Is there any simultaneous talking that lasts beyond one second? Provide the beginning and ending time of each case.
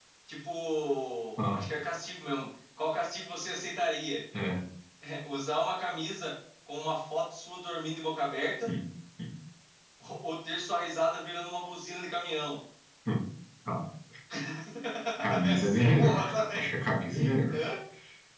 15.4-16.7

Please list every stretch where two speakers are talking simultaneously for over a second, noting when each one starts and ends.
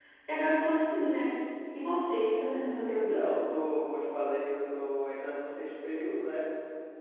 none

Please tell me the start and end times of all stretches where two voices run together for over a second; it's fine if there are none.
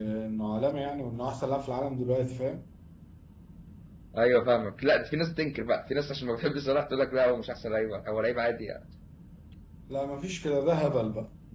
none

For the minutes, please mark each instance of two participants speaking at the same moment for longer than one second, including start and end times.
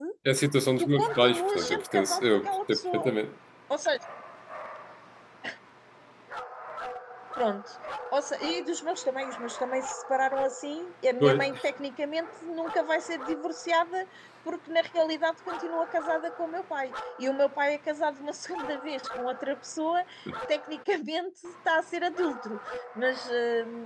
0.8-3.1

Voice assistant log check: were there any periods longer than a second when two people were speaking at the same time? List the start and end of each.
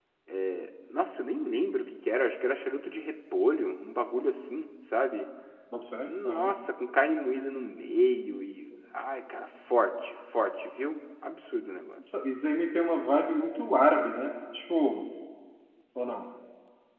none

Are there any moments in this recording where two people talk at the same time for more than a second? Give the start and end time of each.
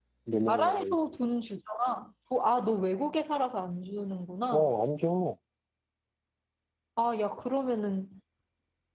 none

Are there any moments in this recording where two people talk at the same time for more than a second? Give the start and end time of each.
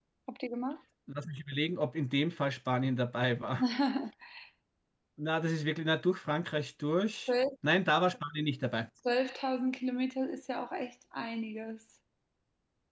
none

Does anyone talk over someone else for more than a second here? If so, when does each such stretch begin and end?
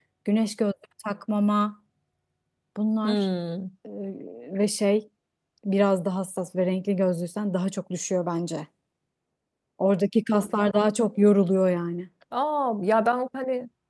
none

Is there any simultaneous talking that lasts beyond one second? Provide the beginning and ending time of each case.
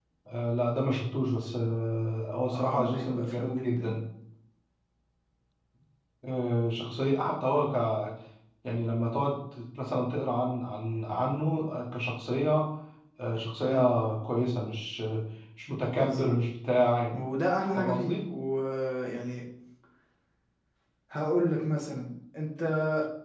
2.5-4.0

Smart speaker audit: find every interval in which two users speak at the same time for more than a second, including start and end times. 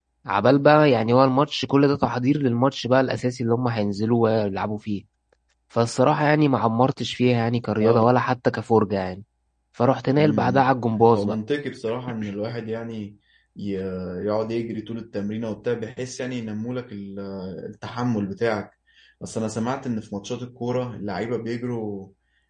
none

